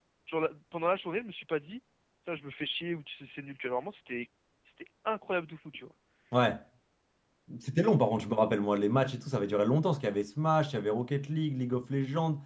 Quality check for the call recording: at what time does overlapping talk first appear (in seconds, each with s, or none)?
none